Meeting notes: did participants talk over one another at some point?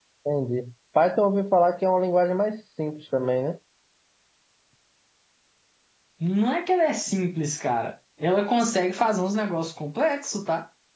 No

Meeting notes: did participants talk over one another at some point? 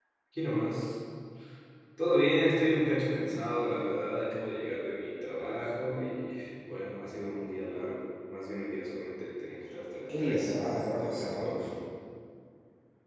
Yes, from 10.1 s

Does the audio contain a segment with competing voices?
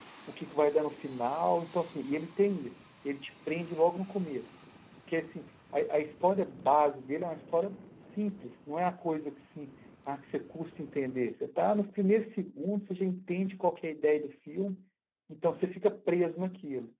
No

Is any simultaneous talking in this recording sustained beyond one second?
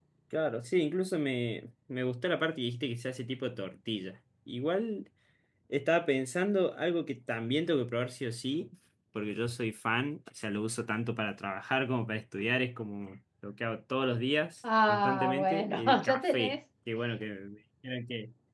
Yes, from 14.6 s

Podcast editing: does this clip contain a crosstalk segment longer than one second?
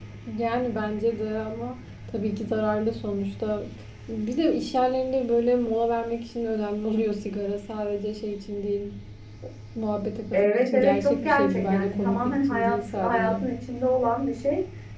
Yes, from 10.3 s

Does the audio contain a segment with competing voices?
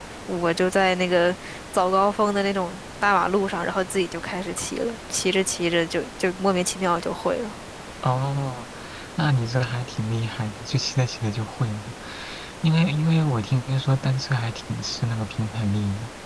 No

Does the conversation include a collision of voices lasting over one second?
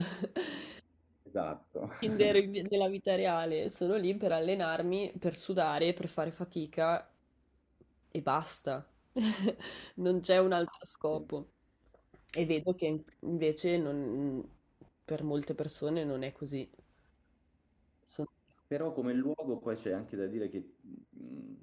No

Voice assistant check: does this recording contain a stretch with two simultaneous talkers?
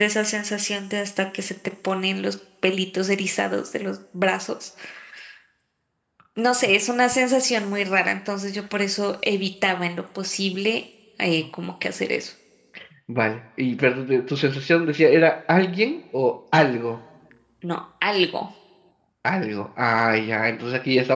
No

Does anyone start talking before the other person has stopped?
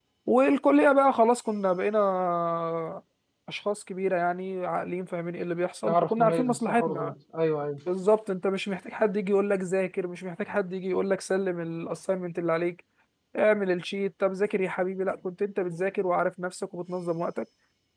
Yes, from 5.8 s

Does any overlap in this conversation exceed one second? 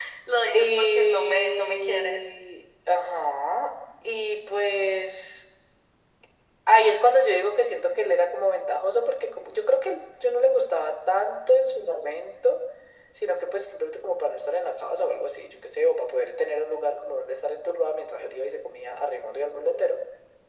Yes, from 0.5 s

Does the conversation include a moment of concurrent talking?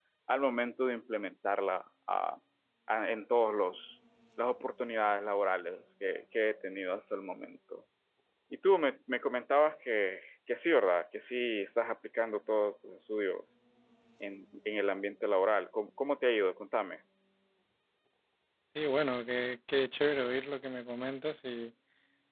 No

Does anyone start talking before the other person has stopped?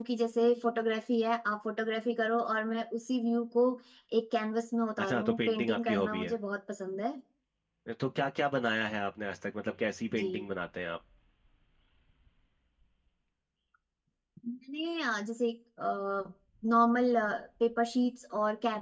Yes, from 5.0 s

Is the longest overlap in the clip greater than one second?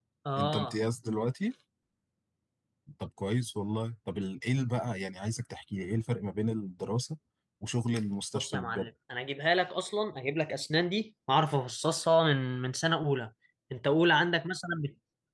No

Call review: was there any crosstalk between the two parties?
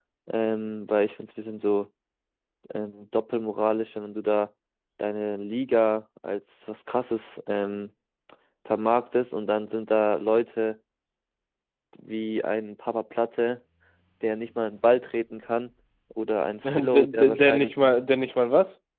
Yes, from 16.6 s

